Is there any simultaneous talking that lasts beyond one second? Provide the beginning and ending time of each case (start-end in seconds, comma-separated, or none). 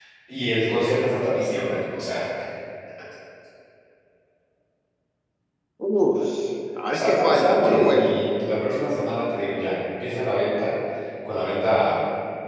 6.9-8.2